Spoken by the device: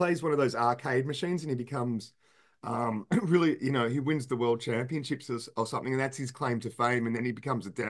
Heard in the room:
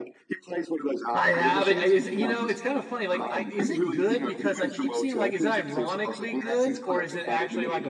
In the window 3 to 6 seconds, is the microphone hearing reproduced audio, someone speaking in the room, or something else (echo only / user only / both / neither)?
both